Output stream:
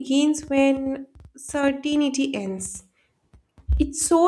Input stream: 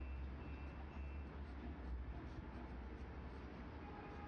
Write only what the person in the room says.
none

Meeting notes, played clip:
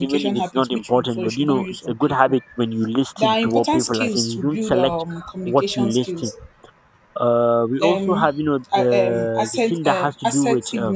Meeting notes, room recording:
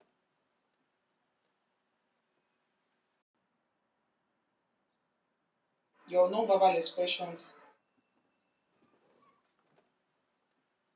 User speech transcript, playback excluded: Your non-verbal expressions.

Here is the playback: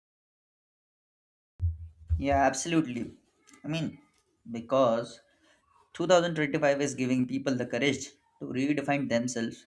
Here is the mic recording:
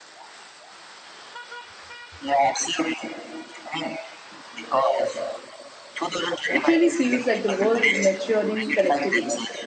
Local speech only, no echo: It really feels like the world is maturing collectively.

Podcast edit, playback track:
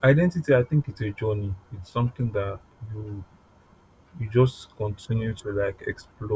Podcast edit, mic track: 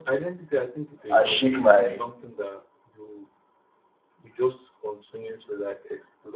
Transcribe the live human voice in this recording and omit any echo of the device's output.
and shake my

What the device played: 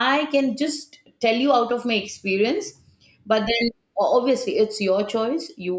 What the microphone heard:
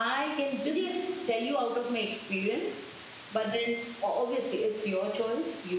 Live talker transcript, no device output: Yes,

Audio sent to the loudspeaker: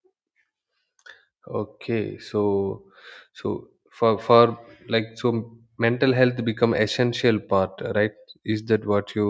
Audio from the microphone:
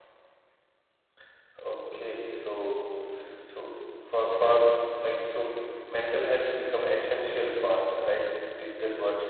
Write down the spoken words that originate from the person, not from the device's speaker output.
none

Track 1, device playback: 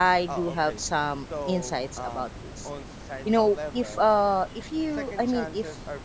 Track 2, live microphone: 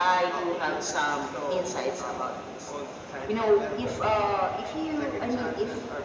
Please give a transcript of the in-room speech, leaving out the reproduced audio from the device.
none

